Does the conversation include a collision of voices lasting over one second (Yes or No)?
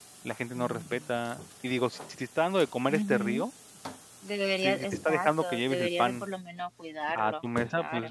Yes